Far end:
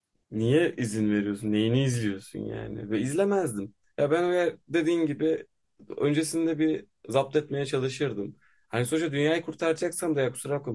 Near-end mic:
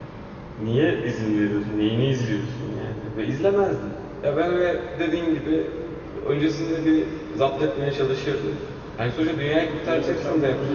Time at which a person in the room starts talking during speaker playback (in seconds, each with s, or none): 9.8 s